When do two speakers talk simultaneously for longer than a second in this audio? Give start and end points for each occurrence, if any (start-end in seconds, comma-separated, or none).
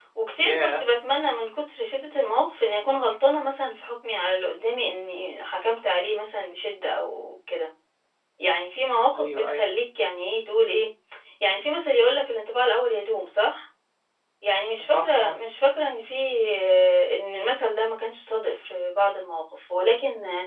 none